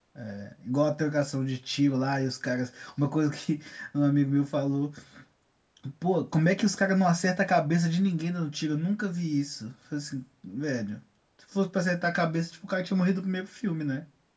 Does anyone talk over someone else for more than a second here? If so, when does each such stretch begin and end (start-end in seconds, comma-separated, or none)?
none